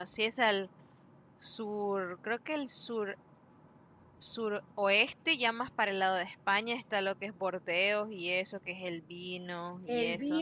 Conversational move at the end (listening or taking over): taking over